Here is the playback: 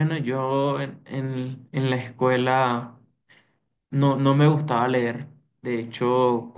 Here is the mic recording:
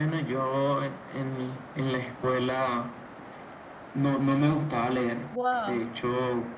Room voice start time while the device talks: 5.3 s

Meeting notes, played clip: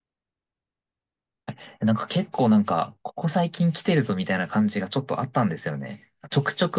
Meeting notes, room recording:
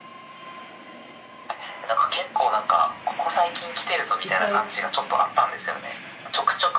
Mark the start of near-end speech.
4.2 s

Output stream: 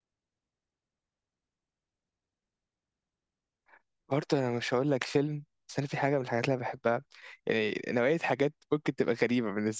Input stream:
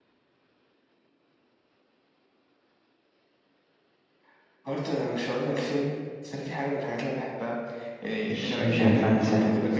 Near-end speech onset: 8.3 s

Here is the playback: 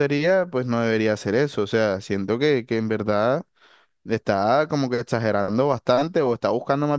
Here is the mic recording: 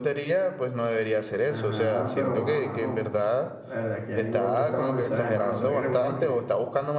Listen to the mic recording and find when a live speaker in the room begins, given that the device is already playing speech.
1.4 s

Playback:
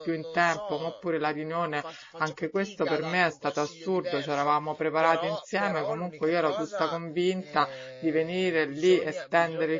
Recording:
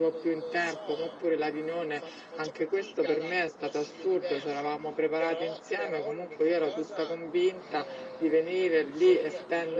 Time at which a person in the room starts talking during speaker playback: none

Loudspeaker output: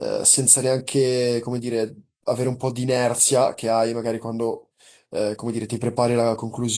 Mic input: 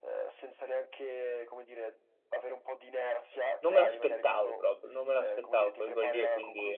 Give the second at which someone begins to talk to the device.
3.6 s

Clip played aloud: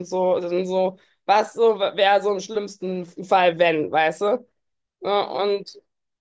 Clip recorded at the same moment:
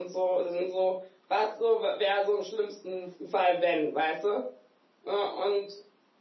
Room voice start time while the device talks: none

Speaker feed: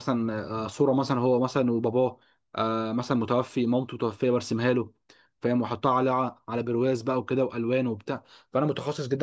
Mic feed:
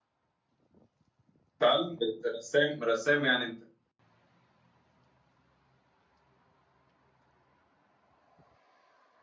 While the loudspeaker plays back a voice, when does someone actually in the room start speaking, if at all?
1.6 s

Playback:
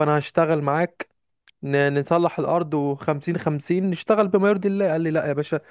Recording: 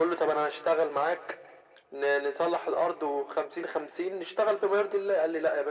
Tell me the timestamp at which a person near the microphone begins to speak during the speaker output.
none

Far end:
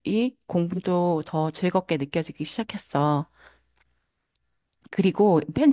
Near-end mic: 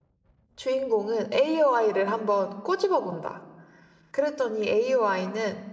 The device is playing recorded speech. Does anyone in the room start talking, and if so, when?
0.6 s

